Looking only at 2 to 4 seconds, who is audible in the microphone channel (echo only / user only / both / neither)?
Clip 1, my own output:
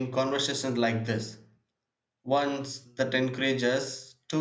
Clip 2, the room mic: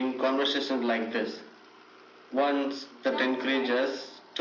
both